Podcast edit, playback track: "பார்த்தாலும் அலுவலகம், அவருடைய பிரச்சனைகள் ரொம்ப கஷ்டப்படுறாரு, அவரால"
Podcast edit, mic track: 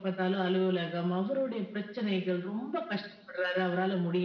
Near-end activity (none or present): none